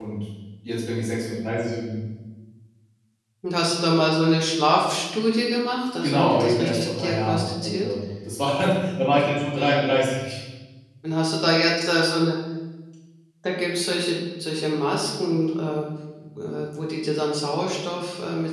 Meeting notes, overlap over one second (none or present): present